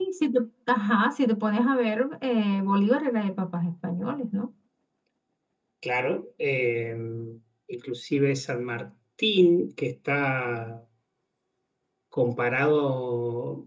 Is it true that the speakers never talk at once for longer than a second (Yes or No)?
Yes